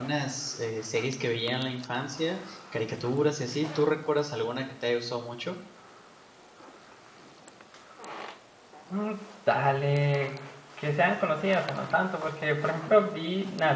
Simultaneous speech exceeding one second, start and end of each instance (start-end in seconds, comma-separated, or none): none